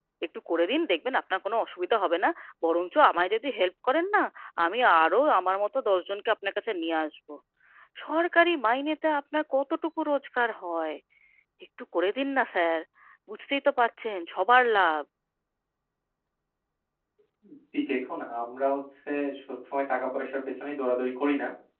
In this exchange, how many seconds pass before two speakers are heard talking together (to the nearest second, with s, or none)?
none